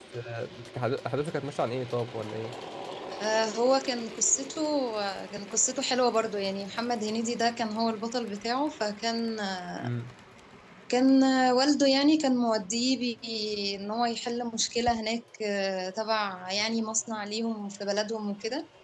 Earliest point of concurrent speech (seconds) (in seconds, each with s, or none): none